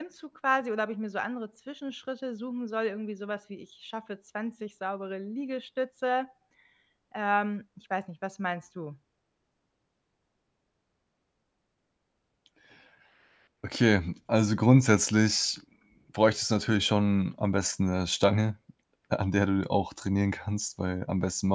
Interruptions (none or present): none